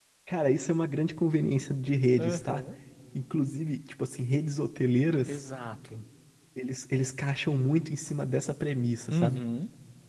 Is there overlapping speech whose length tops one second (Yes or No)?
No